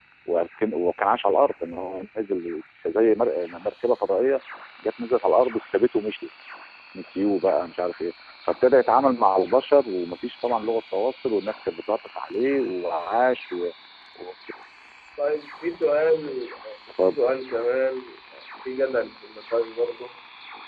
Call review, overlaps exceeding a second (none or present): none